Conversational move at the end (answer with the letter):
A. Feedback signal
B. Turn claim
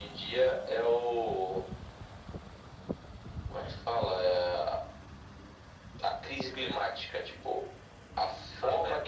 A